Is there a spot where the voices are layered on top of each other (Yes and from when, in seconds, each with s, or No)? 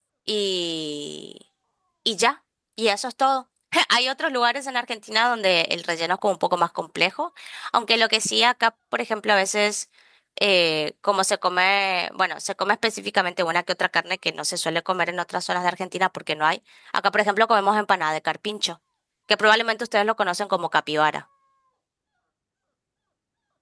No